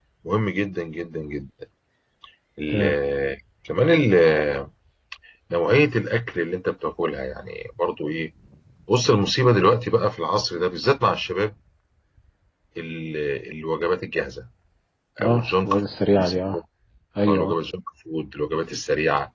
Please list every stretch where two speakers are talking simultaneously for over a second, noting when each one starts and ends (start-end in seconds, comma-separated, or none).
15.2-16.6